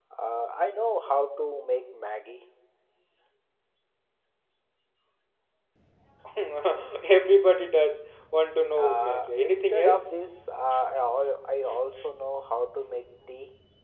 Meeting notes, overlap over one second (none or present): present